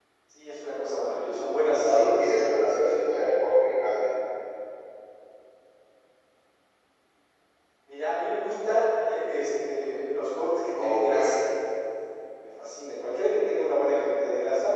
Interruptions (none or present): present